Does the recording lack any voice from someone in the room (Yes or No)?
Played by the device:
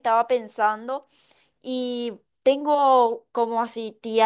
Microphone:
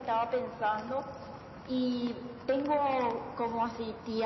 Yes